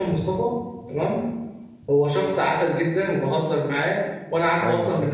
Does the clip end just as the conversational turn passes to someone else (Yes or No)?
No